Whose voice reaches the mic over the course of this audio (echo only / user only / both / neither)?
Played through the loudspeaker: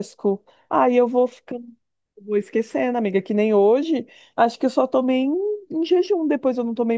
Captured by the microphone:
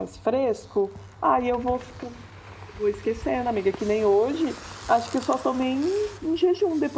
echo only